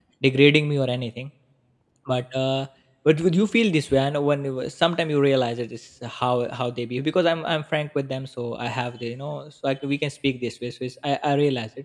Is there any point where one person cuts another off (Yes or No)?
No